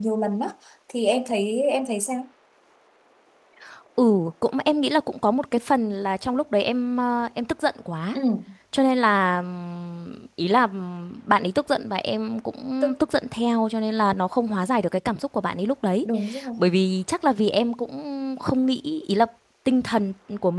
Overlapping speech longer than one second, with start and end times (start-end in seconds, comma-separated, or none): none